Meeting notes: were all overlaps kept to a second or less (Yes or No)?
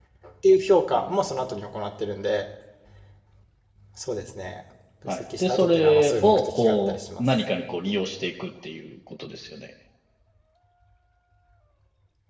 No